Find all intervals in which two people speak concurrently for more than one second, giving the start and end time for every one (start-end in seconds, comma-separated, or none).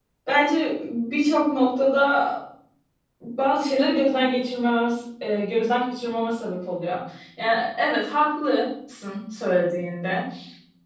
none